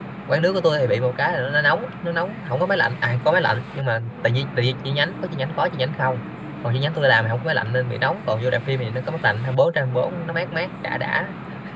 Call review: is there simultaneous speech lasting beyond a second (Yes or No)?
No